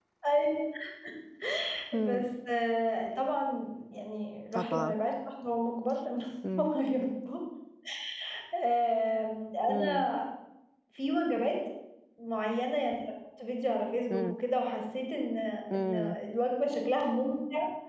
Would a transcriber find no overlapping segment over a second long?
Yes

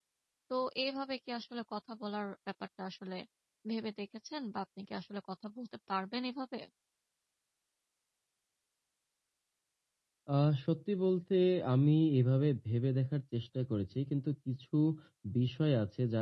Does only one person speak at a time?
Yes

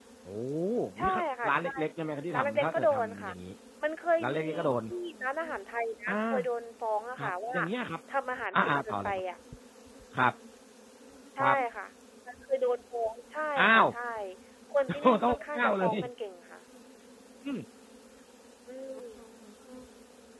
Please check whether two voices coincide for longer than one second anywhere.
Yes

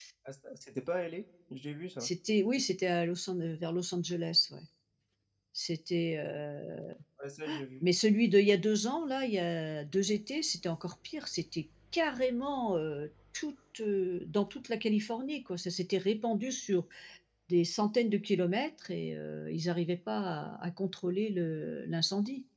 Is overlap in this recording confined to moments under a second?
Yes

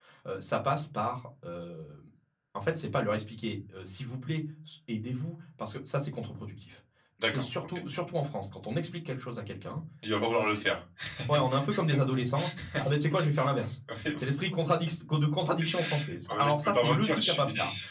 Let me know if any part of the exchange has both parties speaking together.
Yes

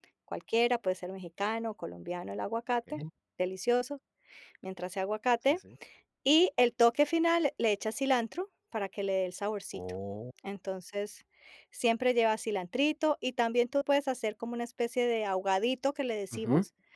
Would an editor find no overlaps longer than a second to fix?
Yes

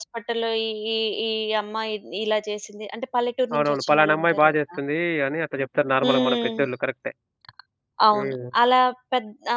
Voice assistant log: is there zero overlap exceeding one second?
No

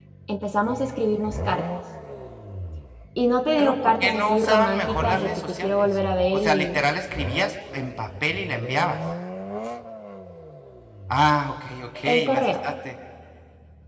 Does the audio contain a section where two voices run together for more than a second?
Yes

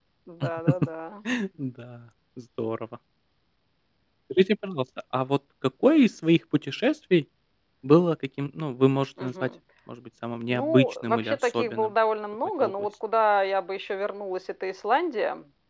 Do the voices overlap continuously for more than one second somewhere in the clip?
Yes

